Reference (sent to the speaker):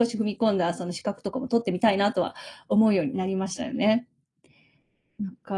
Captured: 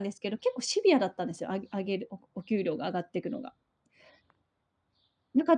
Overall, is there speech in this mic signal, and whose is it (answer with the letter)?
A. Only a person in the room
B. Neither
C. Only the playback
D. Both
A